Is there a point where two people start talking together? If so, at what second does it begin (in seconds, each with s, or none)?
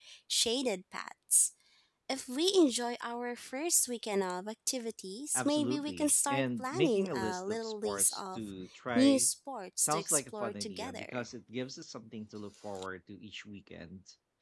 5.3 s